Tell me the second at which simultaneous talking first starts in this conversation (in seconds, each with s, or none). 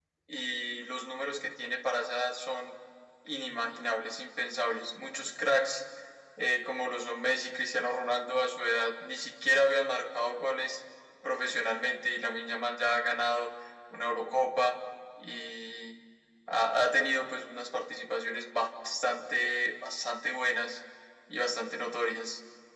none